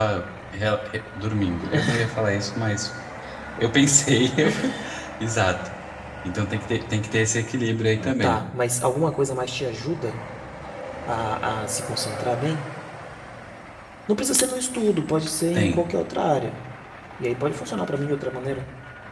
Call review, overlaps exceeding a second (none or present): none